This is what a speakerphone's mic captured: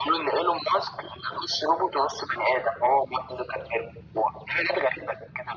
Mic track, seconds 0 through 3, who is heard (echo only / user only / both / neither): echo only